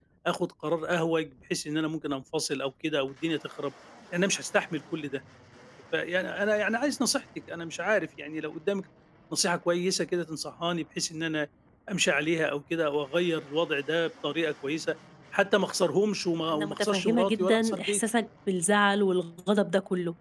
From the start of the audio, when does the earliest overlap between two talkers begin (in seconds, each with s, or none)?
16.5 s